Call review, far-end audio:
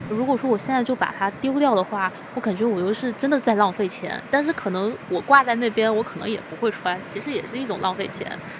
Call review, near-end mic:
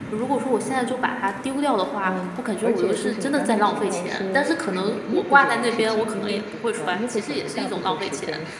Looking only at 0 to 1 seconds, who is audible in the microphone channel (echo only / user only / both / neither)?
echo only